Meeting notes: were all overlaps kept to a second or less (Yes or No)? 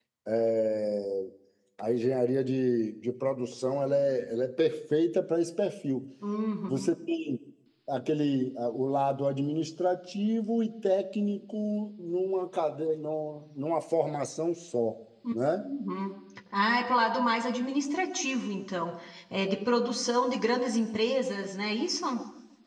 Yes